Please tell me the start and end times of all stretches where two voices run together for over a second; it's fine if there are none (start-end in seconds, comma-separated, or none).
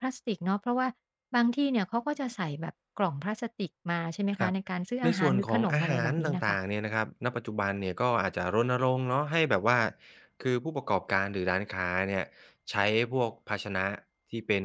5.0-6.6